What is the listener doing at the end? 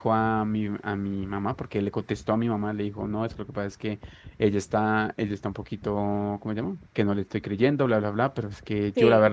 listening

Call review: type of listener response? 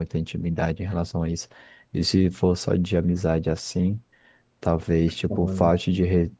listening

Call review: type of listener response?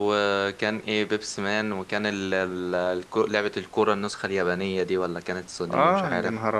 taking over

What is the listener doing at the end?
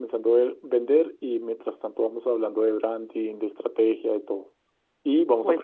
listening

